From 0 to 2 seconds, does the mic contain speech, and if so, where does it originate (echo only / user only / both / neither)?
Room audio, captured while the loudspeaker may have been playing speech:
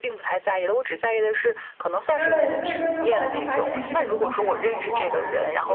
echo only